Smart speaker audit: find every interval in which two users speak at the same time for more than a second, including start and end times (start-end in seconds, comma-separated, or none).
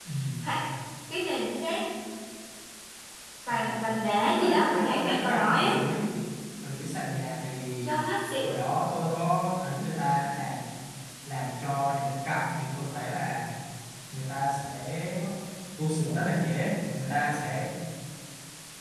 4.2-5.7